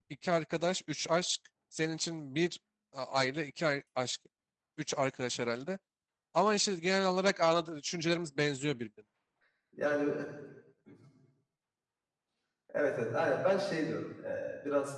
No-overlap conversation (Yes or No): Yes